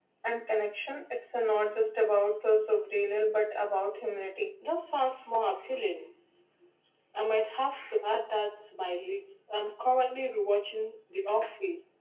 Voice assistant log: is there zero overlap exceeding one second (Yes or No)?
Yes